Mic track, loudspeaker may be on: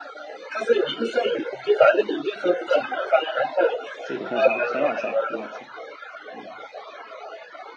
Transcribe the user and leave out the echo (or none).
这个很好，很好猜，很好猜。嗯，